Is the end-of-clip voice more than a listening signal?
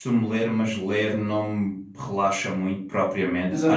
Yes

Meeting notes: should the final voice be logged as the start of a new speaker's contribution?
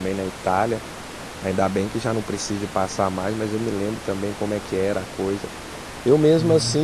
No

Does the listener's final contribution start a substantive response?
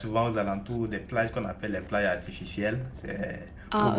No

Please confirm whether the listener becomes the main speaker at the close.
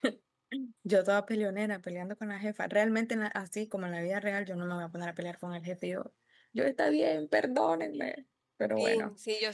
Yes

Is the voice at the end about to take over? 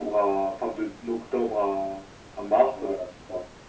Yes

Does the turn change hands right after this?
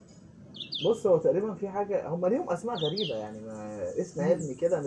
No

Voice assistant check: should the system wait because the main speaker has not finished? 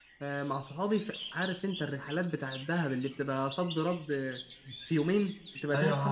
No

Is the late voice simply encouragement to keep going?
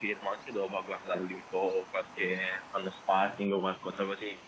Yes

